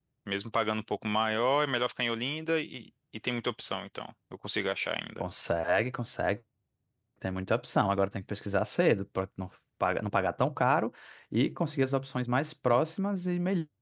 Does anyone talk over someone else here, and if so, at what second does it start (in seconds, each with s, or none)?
none